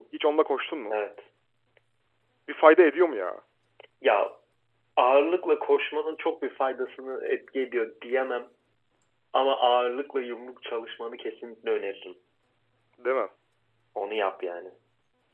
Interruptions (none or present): none